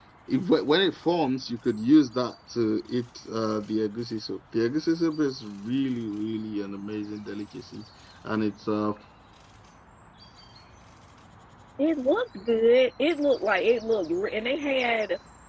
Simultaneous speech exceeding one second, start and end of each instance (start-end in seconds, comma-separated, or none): none